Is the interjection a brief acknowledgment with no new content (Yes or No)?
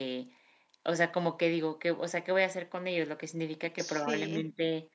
Yes